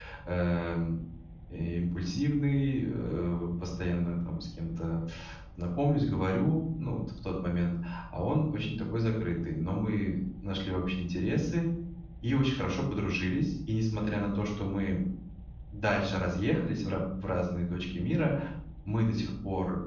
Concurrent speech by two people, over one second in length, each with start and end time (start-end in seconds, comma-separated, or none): none